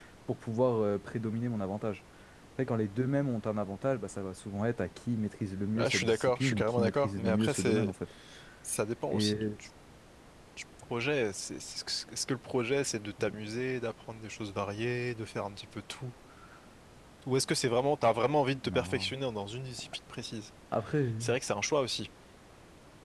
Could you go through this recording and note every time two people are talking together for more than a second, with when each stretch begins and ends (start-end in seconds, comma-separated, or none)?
5.8-7.9